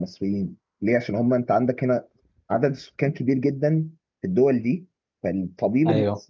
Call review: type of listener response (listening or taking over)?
listening